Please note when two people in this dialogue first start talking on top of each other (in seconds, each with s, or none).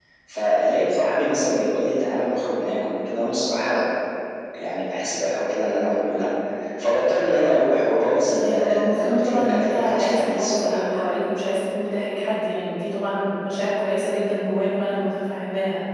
8.4 s